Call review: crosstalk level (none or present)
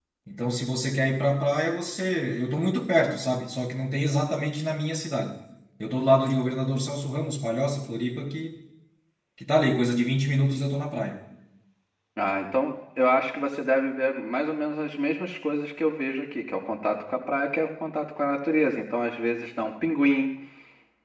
none